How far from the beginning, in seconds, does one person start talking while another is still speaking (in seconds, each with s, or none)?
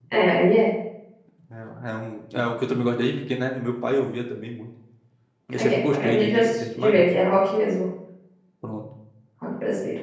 5.6 s